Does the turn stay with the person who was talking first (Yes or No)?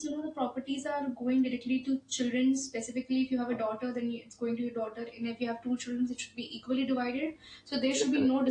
Yes